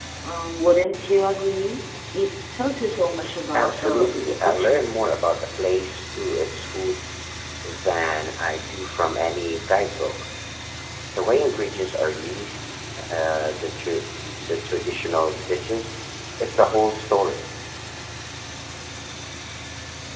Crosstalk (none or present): present